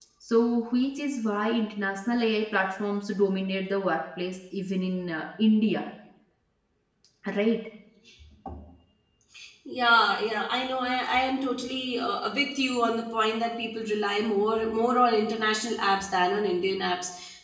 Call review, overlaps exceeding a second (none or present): none